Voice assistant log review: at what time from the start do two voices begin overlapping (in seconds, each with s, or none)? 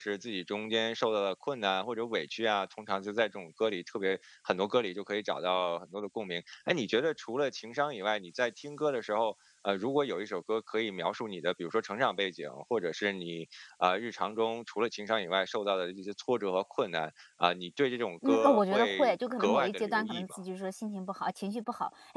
18.2 s